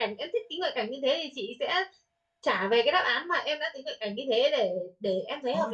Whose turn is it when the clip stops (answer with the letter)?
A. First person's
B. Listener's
B